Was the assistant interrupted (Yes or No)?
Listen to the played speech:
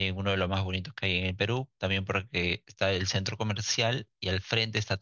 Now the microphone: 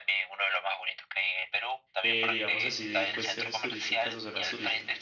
Yes